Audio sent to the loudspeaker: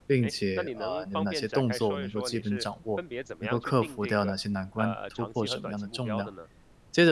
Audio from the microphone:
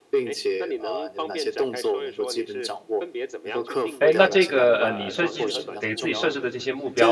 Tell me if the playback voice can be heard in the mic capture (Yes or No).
Yes